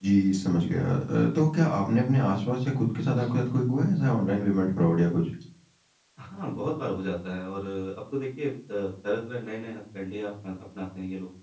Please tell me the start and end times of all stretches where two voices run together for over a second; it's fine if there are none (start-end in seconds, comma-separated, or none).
none